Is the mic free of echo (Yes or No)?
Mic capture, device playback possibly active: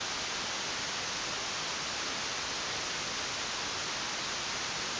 Yes